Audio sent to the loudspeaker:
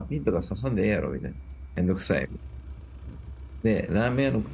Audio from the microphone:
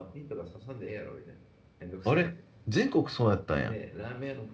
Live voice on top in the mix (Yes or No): Yes